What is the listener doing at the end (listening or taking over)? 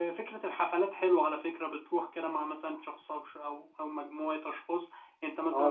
taking over